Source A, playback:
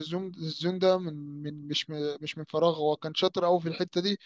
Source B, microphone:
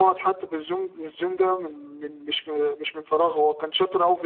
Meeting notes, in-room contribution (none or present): none